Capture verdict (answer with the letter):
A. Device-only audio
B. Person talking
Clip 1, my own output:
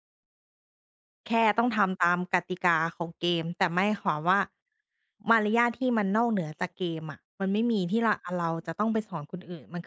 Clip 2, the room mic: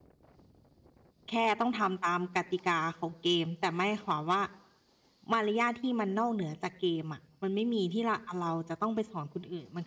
A